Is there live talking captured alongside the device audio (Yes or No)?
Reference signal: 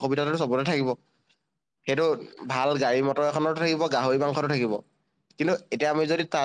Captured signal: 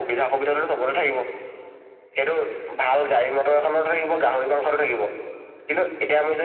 No